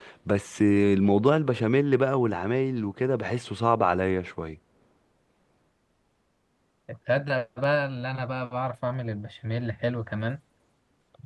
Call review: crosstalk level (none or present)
none